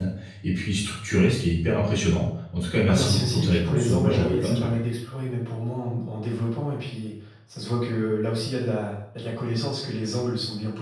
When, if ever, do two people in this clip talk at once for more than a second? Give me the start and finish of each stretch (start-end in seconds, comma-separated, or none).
2.9-4.7